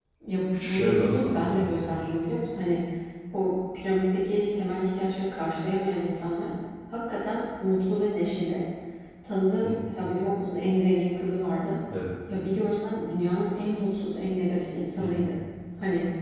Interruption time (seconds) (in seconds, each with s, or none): 0.5 s